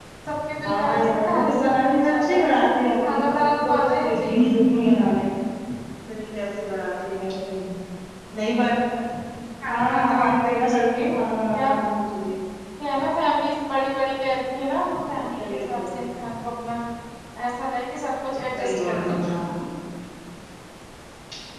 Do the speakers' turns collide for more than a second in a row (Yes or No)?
Yes